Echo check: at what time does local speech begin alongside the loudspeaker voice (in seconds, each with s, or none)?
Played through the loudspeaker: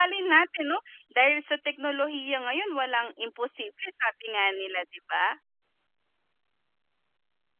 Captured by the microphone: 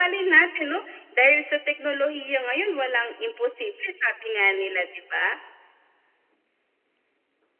none